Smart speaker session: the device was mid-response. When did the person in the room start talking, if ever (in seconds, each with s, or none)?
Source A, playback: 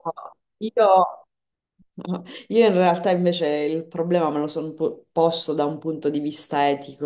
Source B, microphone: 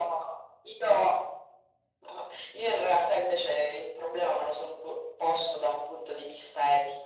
none